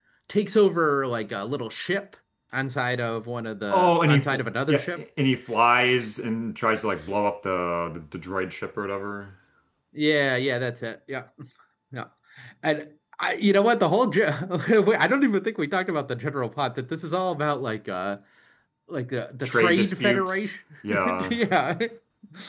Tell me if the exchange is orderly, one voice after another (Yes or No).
No